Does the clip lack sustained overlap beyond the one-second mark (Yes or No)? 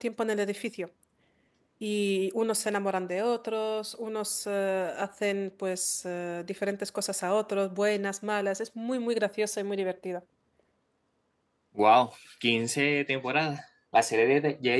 Yes